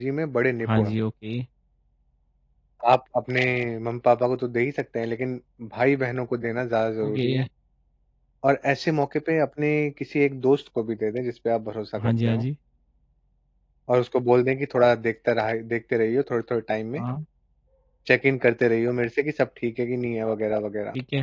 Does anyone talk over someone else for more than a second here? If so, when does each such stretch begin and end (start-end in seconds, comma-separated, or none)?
none